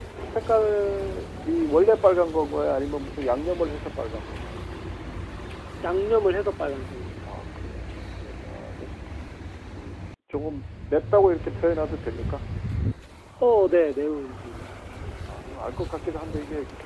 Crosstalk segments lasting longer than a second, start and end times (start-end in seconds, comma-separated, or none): none